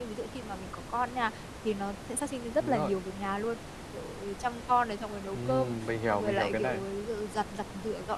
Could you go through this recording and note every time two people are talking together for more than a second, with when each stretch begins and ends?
5.3-6.8

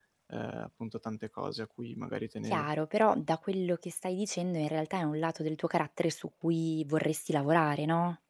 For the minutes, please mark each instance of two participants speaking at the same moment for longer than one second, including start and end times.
none

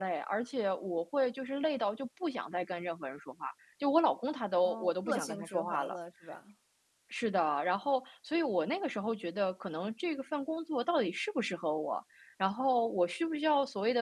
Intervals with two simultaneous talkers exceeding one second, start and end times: 4.6-6.0

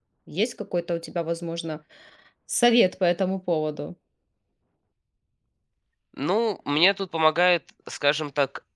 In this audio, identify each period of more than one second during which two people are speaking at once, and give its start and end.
none

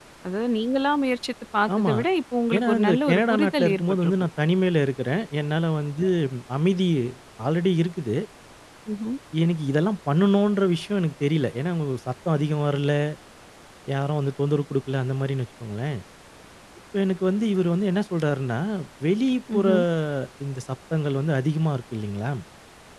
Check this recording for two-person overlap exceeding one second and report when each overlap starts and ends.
2.5-4.1

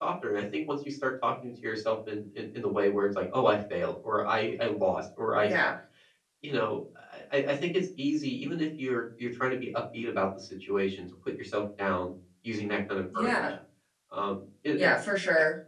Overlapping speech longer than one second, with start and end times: none

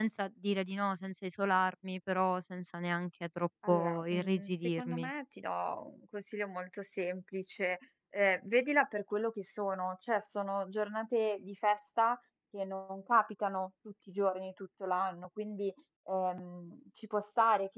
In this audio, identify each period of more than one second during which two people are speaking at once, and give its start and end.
3.7-5.1

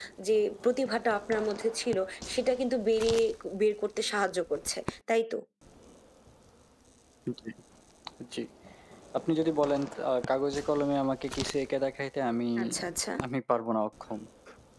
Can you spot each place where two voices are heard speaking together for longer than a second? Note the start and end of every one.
none

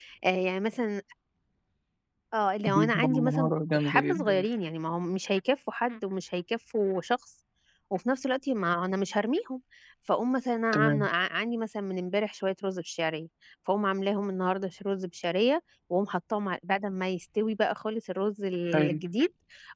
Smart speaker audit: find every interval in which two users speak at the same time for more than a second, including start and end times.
2.7-4.5

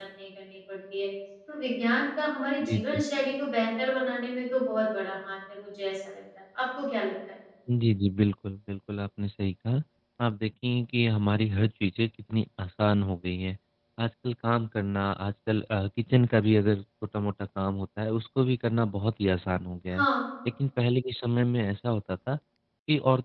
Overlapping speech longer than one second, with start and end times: none

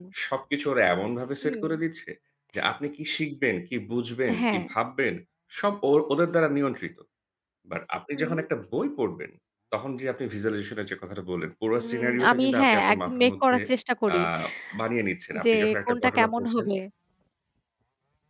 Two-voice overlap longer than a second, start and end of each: 11.8-13.6, 15.4-16.7

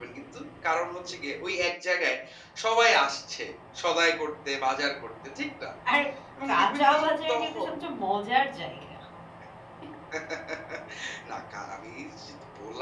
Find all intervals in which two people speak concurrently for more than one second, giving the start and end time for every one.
6.5-7.7

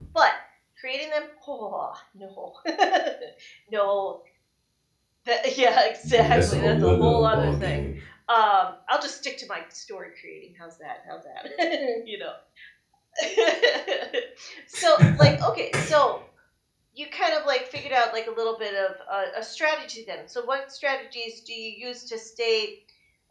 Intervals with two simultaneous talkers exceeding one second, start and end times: 6.1-7.8

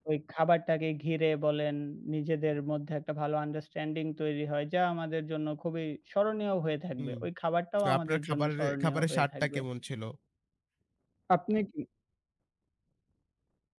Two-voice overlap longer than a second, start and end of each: 7.8-9.6

